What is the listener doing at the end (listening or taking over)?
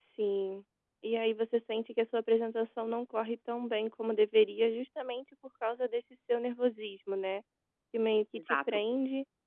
listening